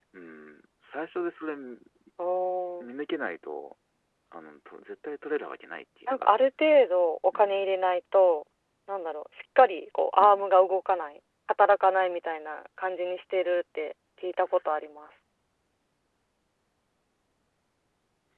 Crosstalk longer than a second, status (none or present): none